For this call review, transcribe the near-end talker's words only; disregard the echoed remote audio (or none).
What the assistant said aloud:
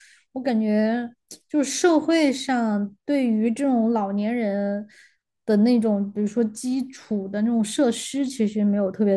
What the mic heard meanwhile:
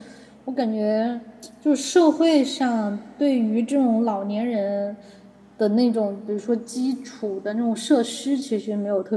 none